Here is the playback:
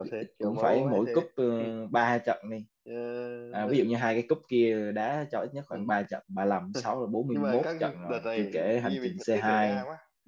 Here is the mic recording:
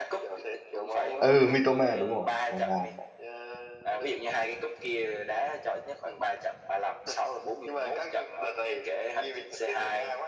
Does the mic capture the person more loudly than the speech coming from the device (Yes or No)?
Yes